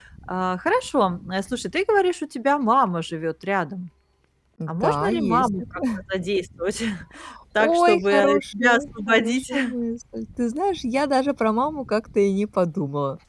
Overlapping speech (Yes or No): Yes